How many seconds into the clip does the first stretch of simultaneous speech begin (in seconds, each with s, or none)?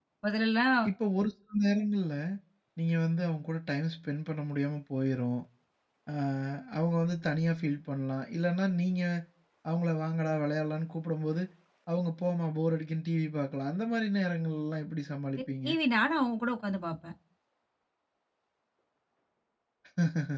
none